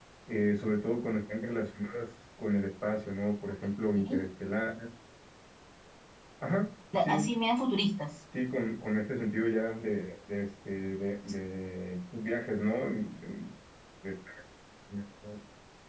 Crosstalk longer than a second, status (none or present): none